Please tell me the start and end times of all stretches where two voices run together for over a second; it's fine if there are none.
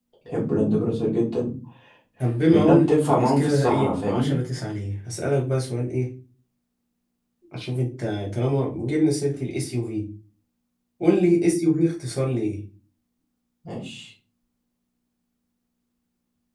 2.5-4.3

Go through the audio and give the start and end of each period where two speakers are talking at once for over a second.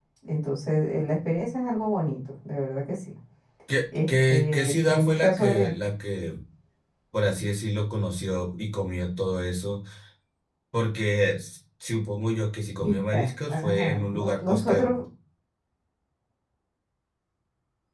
4.1-5.7, 12.8-14.9

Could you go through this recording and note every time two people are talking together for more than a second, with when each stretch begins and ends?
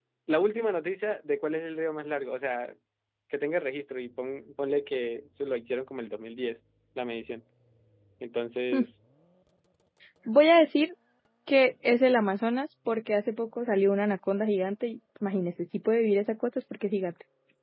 none

